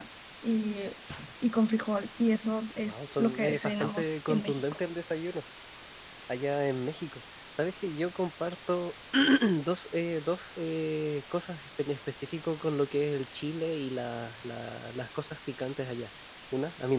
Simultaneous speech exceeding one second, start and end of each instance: 2.8-4.6

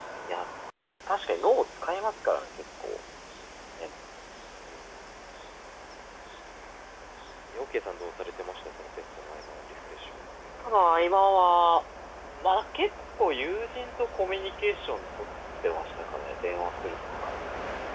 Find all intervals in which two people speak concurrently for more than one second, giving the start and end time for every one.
none

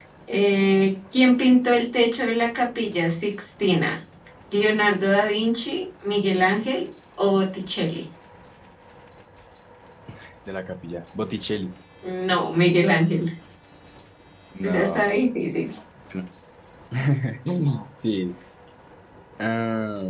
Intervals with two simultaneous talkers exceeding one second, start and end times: none

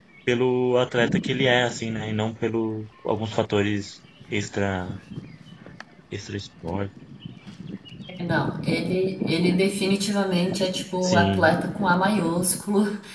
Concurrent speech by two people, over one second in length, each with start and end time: none

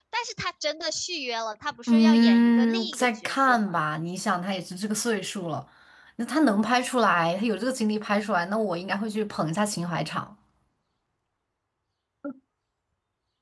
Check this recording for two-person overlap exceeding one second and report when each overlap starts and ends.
1.9-3.8

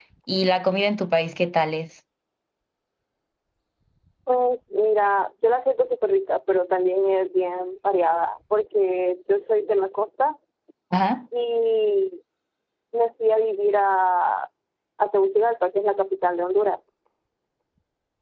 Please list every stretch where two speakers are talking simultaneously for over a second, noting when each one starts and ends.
none

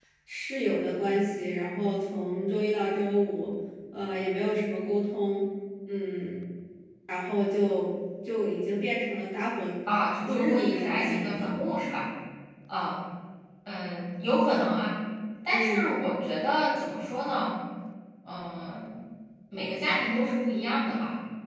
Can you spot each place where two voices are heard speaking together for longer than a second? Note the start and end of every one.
10.3-11.5

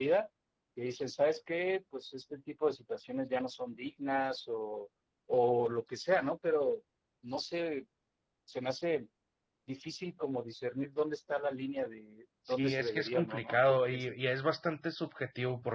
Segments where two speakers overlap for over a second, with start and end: 12.5-14.1

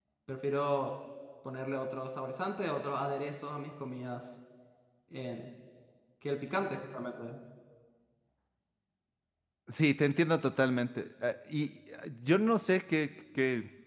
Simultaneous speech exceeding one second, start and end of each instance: none

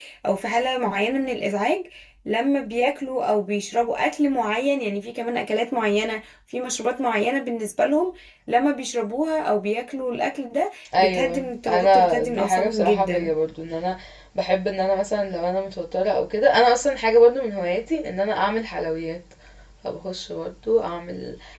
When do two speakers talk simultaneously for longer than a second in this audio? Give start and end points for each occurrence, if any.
11.0-13.3

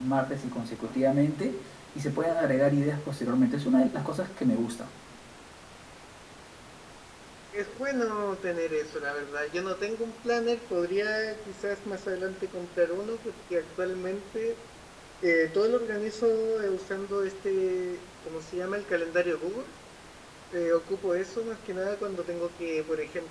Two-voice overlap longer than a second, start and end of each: none

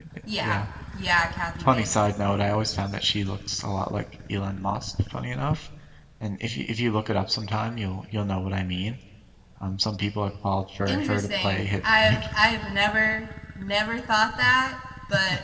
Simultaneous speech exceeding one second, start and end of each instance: 10.9-12.2

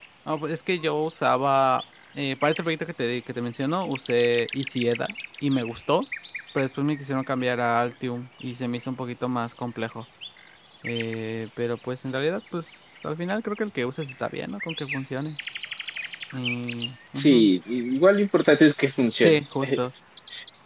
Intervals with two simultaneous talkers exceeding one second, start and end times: none

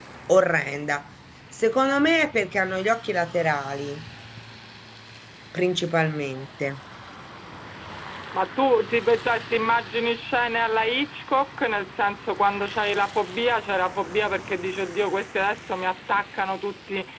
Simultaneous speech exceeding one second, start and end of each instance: none

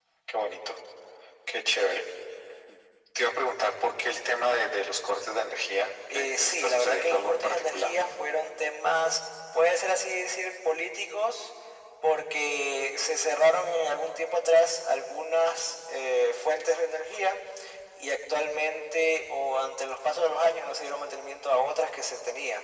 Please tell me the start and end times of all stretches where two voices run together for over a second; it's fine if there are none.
6.1-7.9

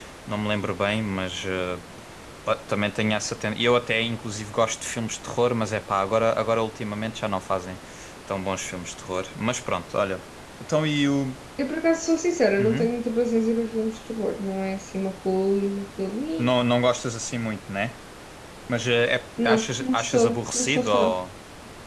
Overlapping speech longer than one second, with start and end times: 19.4-21.2

